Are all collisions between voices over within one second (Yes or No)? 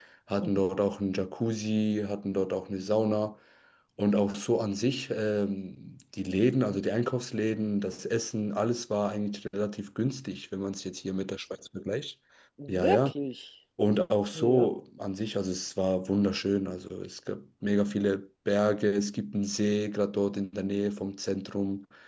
Yes